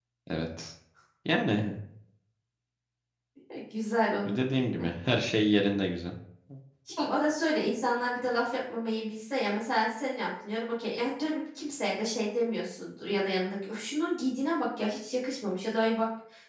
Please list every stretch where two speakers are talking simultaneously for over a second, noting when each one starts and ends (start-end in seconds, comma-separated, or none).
none